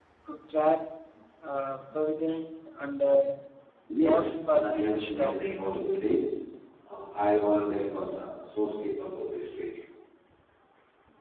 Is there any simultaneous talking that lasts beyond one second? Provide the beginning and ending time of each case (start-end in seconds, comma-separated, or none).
4.0-5.5